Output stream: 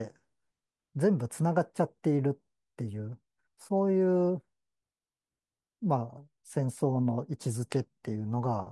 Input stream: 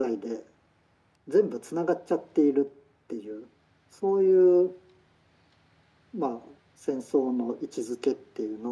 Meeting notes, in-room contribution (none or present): none